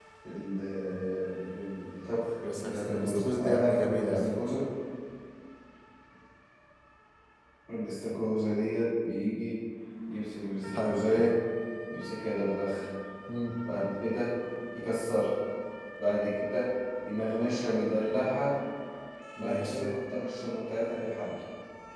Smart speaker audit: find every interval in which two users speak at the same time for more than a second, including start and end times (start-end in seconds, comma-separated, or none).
2.6-4.2